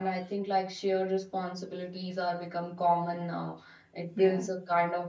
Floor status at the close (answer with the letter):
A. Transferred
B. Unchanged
B